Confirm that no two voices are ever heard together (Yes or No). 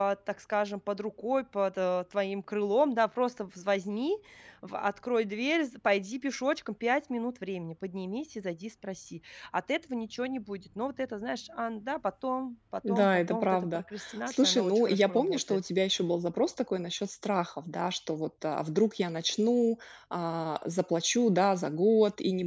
No